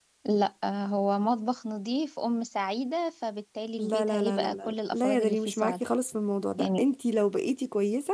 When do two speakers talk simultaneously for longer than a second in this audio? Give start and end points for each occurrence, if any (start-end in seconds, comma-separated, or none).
3.8-5.8